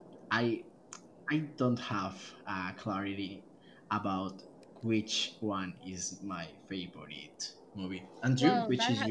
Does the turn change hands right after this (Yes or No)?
Yes